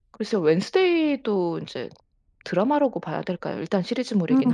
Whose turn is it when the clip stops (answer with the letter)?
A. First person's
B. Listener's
B